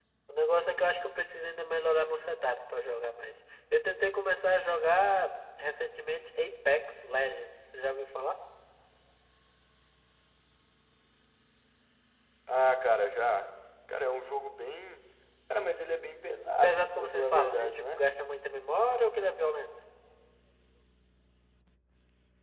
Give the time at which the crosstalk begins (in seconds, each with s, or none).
16.6 s